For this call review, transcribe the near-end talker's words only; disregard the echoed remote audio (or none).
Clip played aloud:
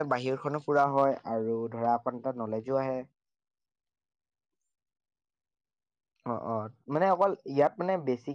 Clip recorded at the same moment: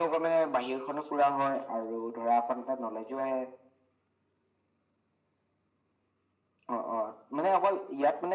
none